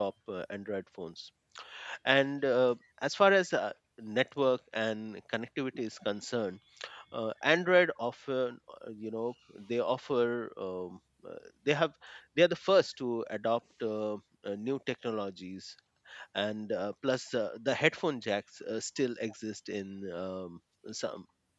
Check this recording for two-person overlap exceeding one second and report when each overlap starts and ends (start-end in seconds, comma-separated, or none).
none